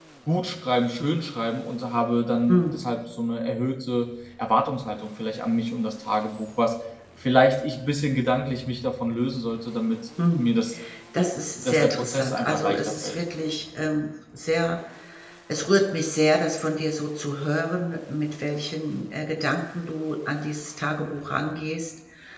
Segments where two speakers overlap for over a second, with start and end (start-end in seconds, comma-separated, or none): 11.6-13.2